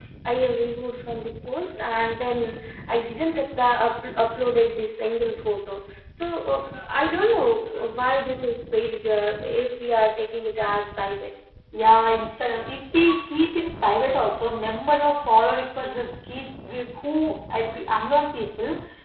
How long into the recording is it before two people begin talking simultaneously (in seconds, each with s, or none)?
none